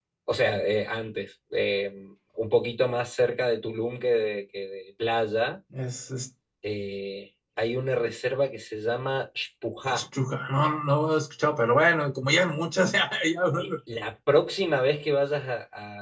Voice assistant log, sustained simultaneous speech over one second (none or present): none